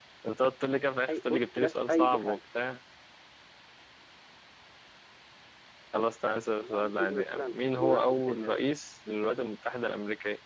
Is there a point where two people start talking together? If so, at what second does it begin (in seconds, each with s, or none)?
1.1 s